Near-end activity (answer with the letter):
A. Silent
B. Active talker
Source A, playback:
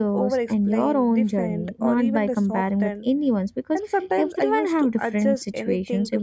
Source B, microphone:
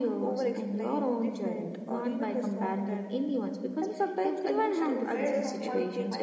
B